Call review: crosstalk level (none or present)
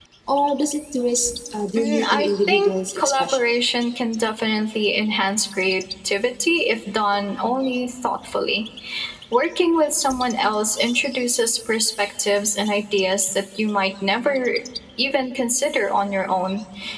present